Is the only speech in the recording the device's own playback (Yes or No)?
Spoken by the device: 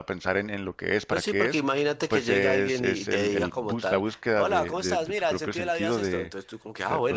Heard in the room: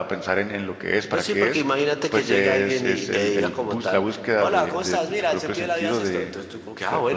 Yes